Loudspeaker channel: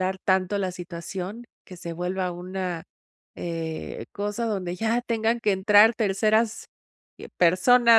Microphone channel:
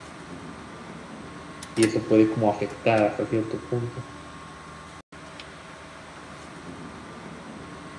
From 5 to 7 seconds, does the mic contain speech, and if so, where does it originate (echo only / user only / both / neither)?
neither